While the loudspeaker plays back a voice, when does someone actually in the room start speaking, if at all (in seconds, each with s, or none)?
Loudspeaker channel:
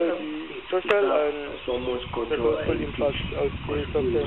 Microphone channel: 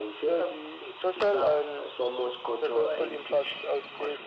none